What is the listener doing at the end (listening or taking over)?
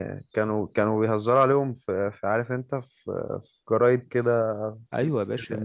taking over